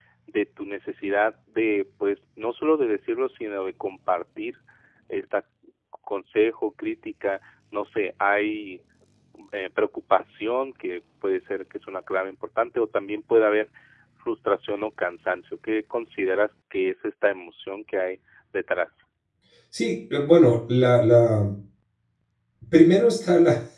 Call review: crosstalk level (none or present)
none